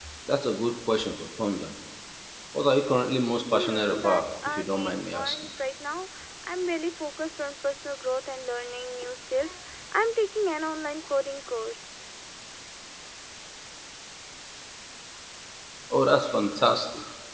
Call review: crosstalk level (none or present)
present